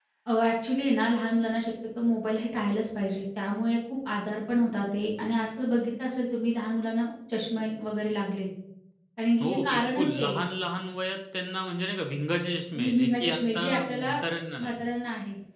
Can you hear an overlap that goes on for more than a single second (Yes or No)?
Yes